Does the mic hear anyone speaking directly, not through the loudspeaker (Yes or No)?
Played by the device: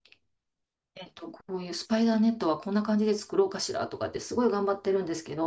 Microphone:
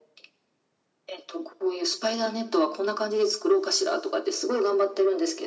No